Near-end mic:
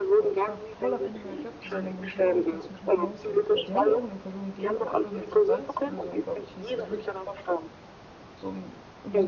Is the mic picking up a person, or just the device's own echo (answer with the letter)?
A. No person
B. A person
B